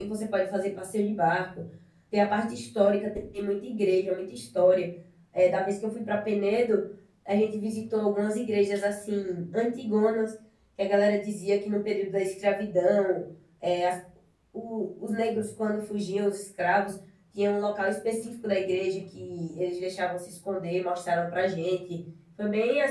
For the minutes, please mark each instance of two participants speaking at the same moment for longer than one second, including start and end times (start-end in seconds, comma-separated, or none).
none